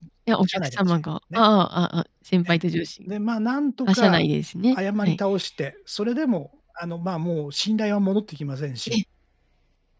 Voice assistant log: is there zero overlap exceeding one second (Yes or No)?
Yes